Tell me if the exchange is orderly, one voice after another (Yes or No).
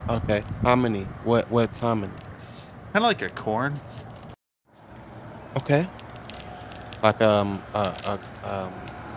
Yes